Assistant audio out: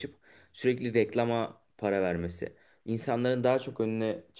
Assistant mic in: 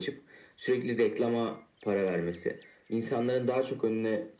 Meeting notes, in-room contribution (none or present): none